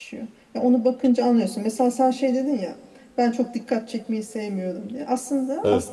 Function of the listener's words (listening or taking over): listening